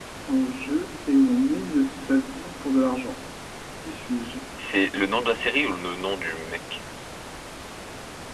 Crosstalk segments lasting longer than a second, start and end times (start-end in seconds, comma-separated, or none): none